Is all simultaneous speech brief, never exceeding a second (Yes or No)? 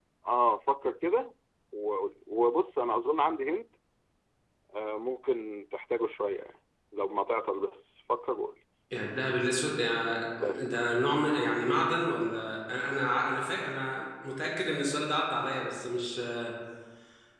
Yes